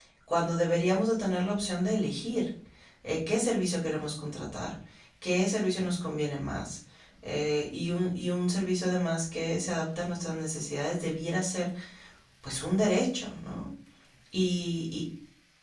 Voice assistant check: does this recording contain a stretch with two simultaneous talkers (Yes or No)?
No